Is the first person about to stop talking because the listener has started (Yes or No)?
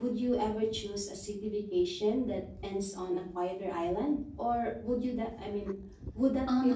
Yes